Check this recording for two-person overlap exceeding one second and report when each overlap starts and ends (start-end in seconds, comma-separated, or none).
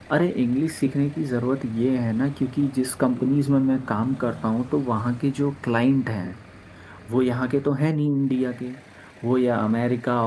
none